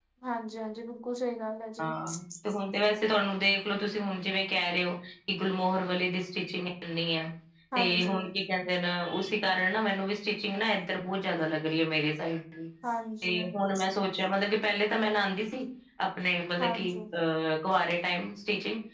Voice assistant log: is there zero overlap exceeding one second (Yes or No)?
Yes